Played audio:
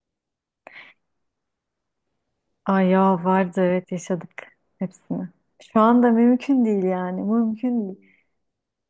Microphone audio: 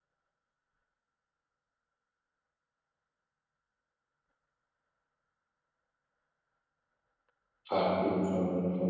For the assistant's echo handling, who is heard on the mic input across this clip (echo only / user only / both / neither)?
user only